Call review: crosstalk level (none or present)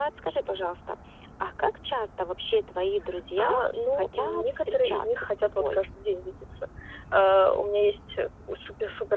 present